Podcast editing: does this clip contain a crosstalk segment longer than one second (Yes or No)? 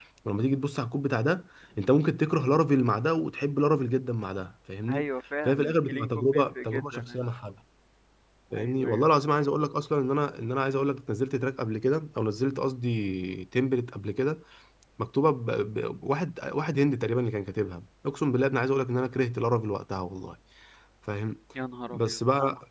Yes